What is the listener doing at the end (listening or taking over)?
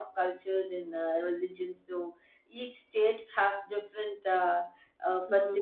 taking over